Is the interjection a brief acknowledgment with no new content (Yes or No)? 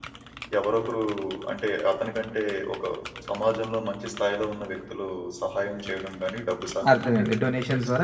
No